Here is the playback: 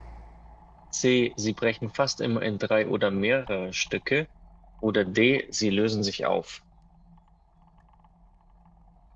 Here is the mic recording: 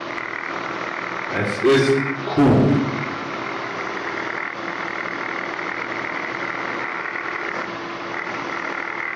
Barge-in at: 1 s

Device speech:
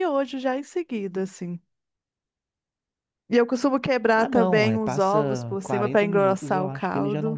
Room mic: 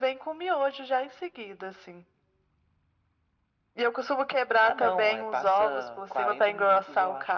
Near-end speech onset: none

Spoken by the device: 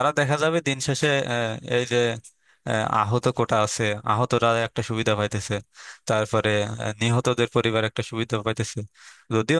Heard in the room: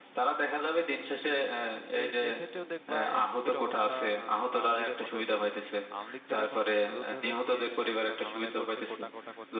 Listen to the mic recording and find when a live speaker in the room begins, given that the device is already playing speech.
1 s

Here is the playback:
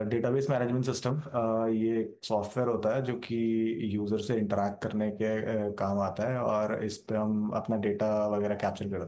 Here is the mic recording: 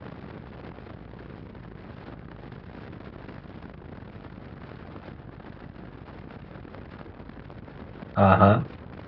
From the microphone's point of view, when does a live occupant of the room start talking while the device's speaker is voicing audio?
8 s

